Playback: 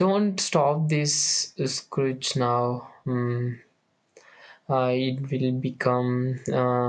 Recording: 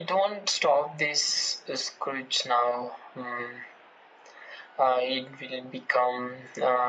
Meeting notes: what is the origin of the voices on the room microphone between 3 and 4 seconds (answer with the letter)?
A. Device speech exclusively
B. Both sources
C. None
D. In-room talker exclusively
A